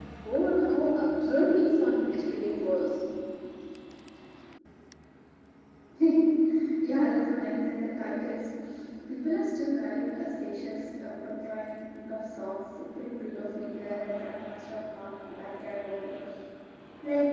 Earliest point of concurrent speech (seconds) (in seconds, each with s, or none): none